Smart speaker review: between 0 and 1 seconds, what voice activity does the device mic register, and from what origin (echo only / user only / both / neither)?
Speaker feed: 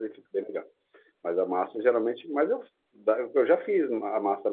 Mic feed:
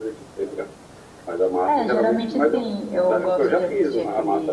echo only